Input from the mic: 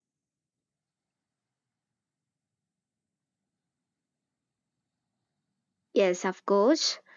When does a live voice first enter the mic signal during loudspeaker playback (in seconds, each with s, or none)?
6.0 s